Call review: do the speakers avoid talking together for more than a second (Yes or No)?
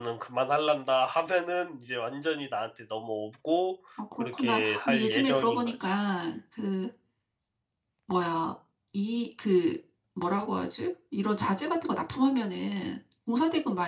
No